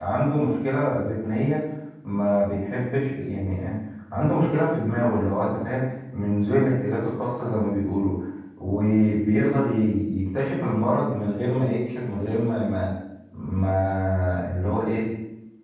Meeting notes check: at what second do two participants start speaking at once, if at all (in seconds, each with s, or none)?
none